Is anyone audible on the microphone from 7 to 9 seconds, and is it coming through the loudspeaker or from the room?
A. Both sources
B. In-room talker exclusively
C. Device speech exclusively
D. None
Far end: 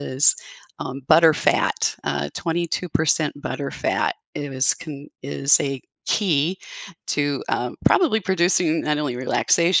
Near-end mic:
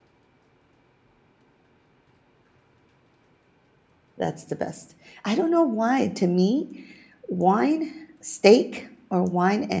B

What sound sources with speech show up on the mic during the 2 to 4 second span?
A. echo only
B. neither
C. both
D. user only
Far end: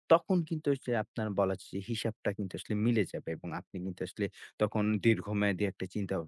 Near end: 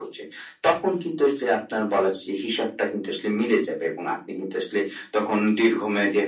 A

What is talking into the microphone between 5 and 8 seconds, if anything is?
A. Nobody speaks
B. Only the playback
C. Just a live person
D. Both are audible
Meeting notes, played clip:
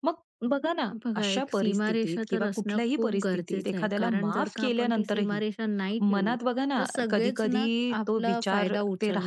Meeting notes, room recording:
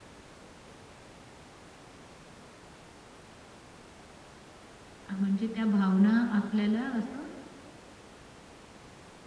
C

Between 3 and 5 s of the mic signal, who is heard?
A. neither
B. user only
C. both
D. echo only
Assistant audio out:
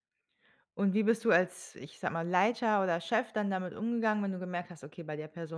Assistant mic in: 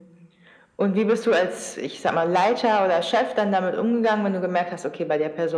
D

